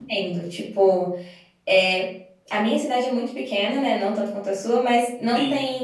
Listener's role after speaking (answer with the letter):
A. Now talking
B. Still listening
B